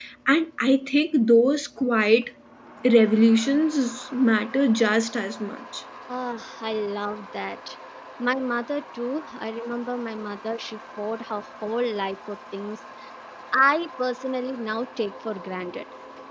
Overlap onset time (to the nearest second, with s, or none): none